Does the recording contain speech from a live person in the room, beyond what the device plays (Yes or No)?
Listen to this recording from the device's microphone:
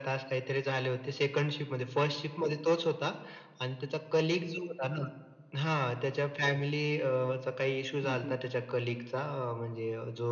Yes